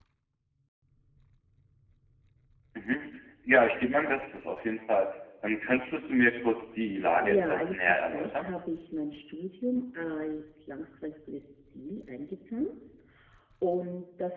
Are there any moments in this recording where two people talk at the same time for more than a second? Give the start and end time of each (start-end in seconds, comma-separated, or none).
7.2-8.5